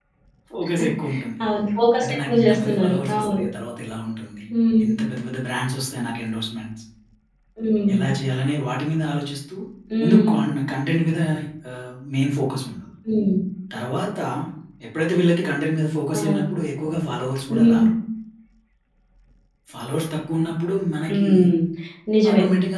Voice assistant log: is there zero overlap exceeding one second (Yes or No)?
No